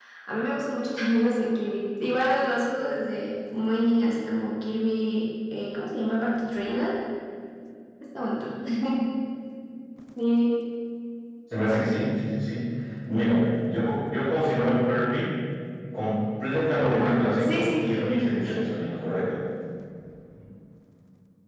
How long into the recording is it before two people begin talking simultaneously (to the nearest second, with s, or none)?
17 s